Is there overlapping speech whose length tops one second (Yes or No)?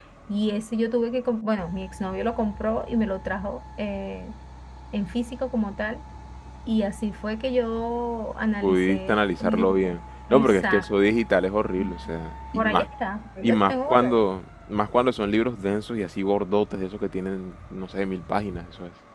Yes